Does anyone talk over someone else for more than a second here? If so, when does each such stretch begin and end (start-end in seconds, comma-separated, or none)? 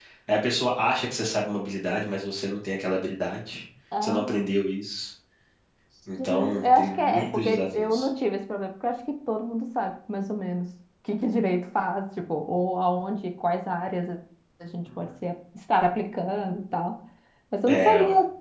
6.2-8.1